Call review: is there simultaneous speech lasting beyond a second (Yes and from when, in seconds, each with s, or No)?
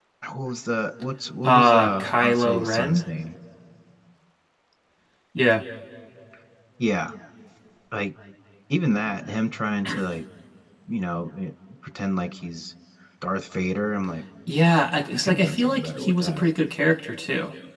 Yes, from 1.4 s